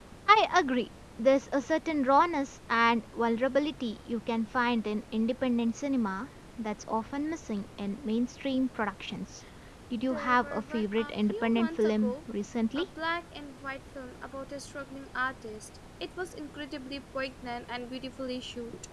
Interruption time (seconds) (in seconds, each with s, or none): 10.1 s